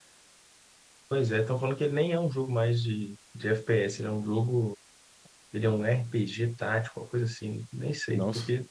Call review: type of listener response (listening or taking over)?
listening